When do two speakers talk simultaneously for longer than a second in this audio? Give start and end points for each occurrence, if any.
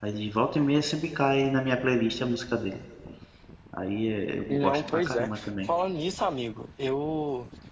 4.5-5.7

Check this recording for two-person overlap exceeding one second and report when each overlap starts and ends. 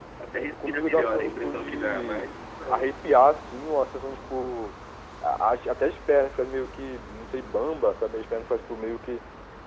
0.6-2.3

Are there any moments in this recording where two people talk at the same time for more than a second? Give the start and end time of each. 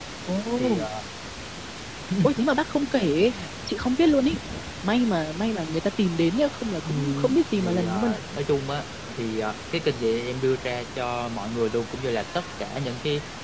6.9-8.2

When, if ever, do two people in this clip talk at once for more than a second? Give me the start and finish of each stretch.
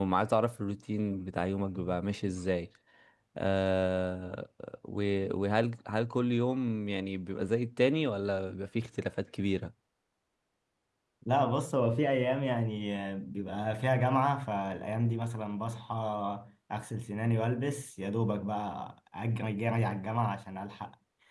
none

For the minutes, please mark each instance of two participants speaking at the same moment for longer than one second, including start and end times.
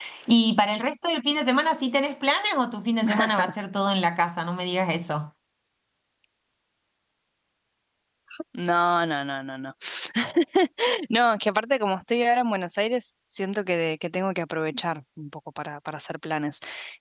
none

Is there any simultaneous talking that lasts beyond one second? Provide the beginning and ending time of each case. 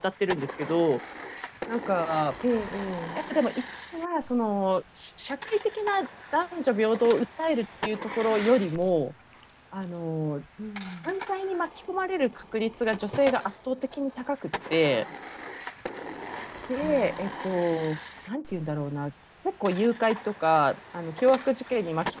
none

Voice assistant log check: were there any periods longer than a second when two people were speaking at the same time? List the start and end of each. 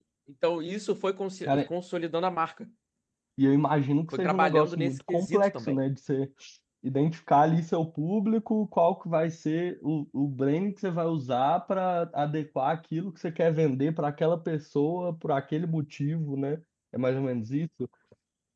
4.2-5.8

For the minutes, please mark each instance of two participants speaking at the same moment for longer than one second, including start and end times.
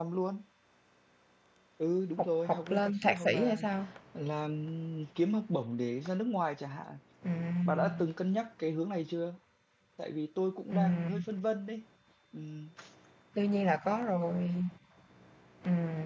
2.2-3.6

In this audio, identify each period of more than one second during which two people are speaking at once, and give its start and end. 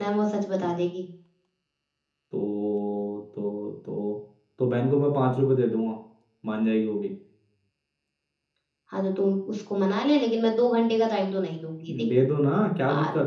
none

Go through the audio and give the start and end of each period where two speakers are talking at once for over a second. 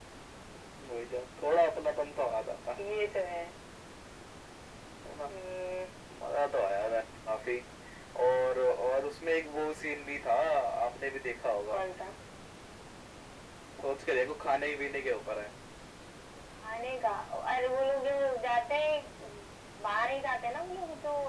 none

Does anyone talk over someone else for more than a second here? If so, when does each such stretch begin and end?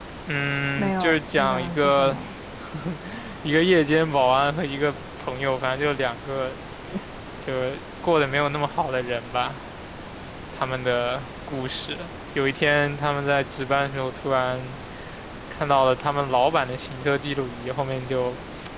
0.8-2.2

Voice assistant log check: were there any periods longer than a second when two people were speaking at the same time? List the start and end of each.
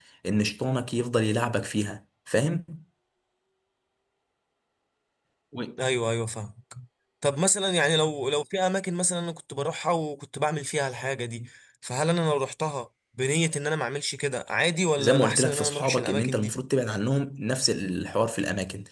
15.0-16.6

